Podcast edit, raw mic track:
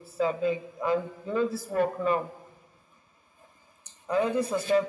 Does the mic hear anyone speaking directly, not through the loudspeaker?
No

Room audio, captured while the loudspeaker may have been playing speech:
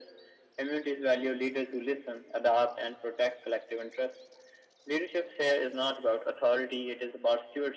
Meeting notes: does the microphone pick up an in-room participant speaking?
No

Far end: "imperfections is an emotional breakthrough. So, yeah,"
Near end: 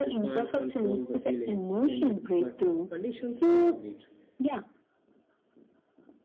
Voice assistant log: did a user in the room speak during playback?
Yes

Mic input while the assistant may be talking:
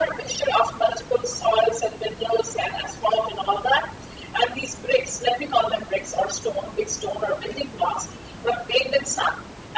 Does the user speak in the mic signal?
No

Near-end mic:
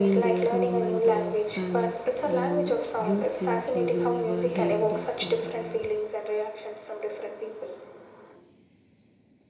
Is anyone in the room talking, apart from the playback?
Yes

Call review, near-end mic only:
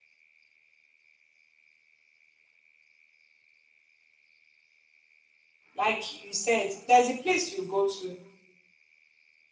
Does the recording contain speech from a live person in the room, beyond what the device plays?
Yes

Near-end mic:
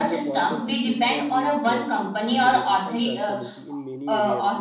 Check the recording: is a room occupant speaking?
Yes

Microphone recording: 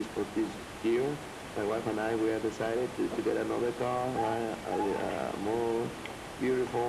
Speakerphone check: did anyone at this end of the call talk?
No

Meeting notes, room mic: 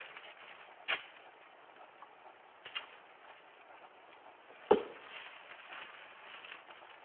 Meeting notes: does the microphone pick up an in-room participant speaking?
No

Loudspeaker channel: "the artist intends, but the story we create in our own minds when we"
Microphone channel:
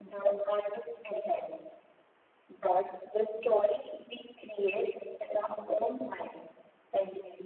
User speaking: No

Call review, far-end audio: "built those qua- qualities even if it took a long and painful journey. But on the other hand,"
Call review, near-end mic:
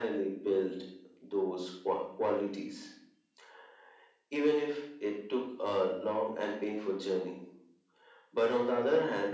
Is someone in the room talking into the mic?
No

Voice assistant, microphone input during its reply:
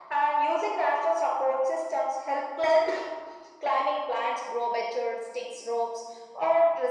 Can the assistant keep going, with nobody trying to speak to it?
Yes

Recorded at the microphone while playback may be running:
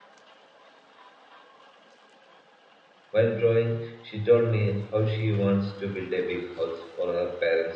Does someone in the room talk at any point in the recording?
Yes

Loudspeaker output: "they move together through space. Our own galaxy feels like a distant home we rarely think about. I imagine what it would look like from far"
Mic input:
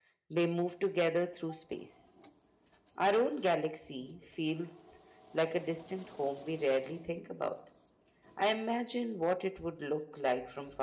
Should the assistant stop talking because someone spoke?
No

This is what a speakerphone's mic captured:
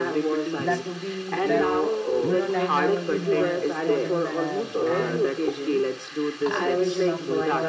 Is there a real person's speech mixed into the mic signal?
Yes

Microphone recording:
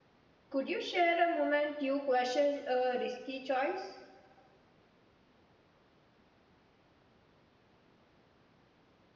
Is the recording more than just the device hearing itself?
Yes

